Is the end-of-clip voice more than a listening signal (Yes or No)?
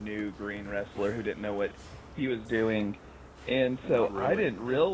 No